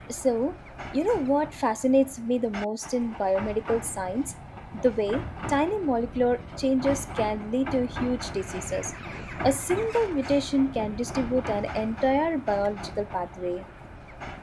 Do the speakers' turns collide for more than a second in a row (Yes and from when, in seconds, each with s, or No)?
No